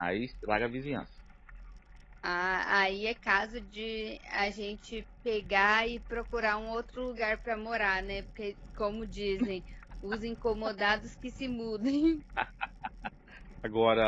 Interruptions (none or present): none